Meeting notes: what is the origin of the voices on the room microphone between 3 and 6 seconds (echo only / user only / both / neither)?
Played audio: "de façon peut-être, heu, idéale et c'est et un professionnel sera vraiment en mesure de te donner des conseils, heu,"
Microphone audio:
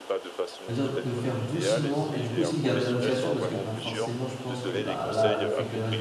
both